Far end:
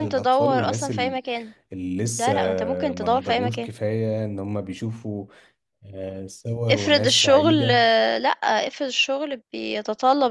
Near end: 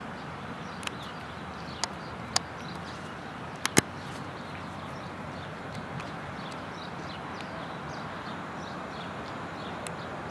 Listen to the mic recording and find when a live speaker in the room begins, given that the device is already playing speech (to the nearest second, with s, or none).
none